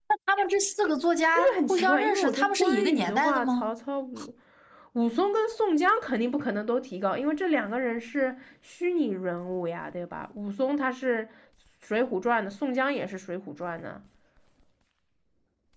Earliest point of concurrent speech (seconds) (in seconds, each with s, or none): 1.4 s